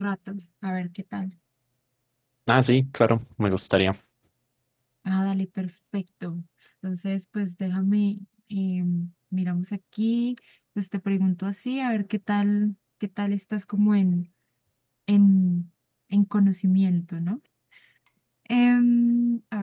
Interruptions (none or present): none